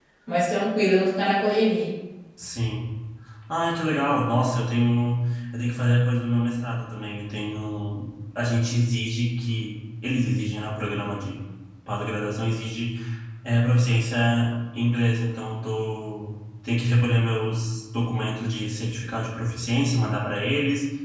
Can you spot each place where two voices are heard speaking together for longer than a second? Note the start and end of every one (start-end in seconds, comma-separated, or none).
none